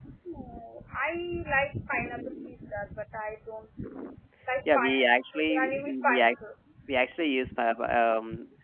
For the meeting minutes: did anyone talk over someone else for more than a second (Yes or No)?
Yes